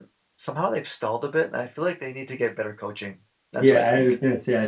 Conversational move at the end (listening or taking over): taking over